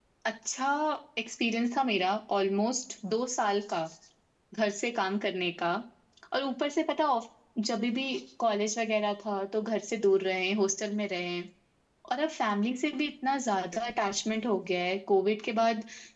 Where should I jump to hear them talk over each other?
none

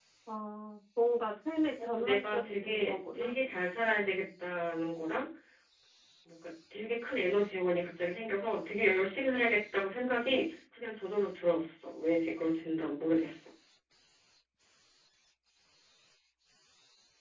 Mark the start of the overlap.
1.8 s

